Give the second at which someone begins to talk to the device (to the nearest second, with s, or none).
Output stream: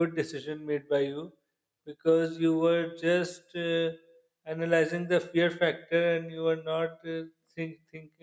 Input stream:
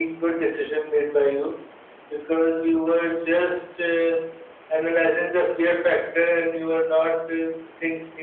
none